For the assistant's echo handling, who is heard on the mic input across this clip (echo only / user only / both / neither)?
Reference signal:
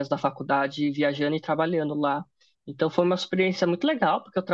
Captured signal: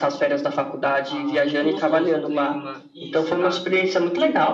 both